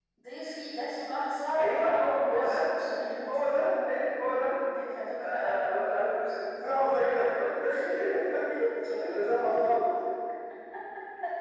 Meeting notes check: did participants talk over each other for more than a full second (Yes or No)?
Yes